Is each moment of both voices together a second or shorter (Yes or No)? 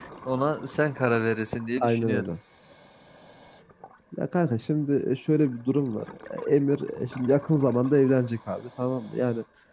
Yes